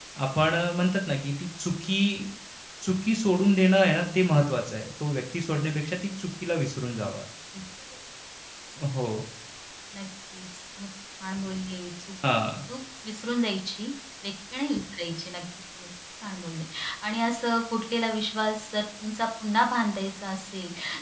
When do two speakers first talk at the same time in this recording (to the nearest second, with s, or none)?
none